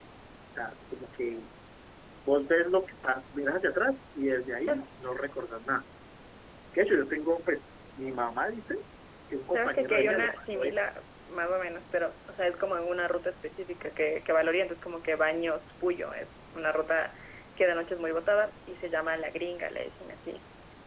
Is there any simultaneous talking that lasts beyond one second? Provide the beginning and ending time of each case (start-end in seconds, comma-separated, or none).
9.5-10.8